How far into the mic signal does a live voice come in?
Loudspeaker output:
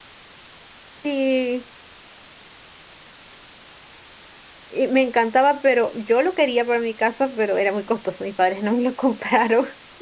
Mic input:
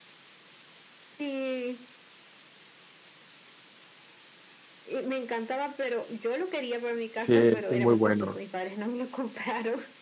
7 s

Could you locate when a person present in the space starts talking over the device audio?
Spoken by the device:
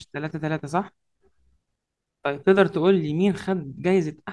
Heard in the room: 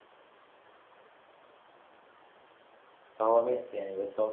3 s

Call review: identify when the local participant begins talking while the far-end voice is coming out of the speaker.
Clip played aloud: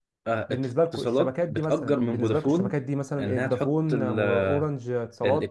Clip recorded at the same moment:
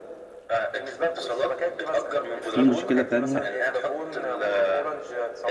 2 s

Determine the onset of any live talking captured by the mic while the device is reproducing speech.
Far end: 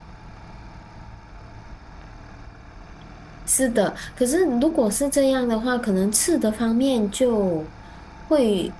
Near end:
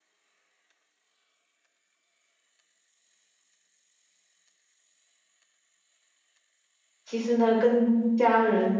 7 s

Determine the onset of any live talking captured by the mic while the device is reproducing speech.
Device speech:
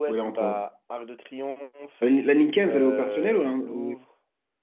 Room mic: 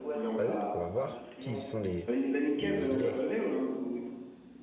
0 s

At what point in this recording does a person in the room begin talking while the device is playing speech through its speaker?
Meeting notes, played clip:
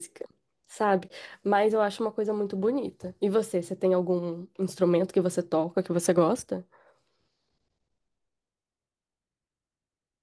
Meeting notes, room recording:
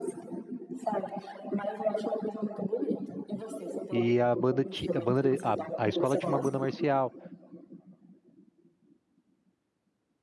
4 s

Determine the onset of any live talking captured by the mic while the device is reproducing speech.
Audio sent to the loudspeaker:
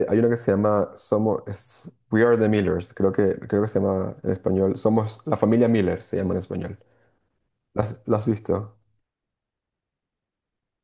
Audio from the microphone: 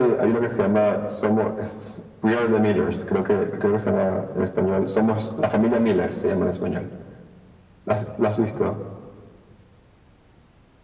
none

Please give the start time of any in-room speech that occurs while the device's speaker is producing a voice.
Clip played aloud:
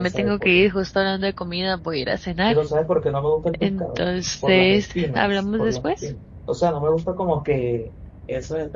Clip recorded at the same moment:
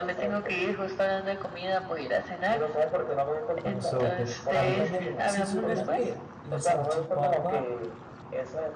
4 s

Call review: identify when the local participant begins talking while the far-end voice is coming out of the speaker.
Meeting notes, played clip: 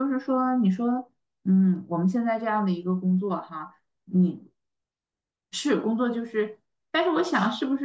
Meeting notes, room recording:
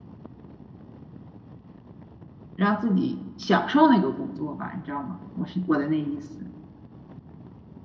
3 s

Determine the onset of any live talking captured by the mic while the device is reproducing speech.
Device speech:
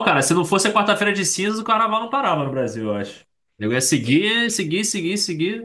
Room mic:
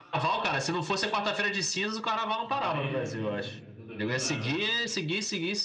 2 s

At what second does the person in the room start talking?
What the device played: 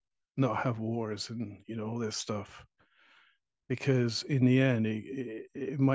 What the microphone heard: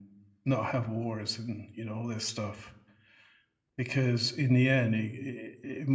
none

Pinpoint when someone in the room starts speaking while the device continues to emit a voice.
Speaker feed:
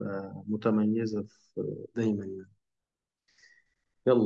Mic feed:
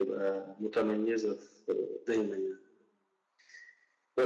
none

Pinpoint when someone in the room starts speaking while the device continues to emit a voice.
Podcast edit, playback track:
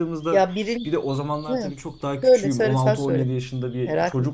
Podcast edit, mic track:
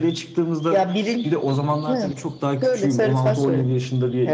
none

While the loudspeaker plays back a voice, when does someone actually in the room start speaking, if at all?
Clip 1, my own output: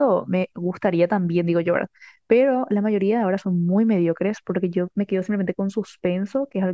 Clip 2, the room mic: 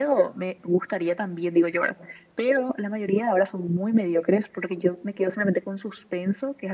none

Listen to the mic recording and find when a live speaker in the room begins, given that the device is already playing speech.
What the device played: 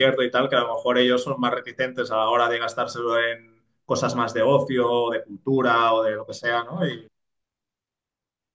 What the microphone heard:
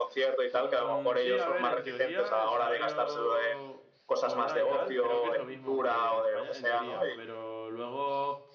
1 s

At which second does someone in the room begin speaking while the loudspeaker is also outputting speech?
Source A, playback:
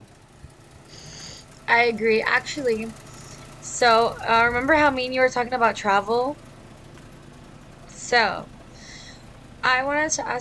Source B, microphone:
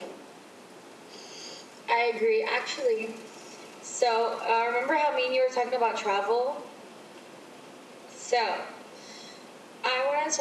none

